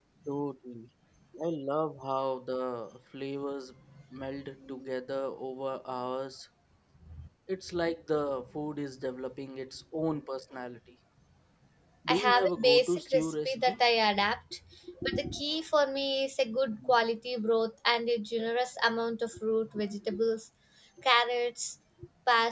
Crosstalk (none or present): present